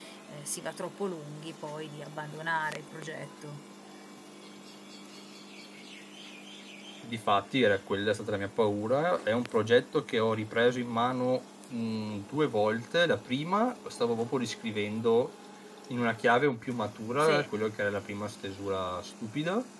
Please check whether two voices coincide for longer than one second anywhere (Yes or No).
No